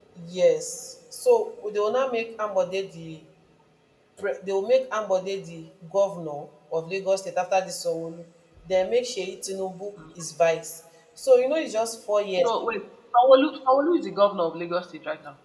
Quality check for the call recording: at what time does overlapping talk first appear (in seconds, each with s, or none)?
none